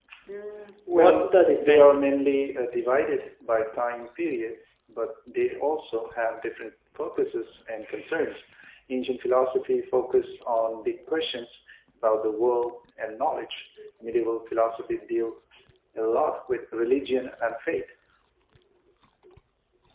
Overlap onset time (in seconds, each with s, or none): 0.9 s